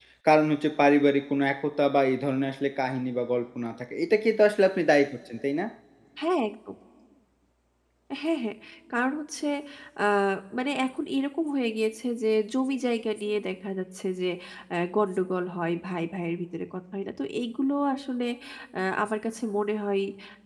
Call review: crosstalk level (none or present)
none